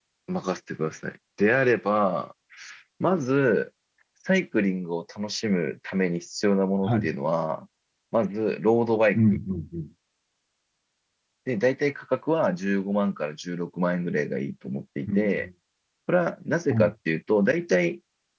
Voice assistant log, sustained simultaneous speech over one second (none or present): none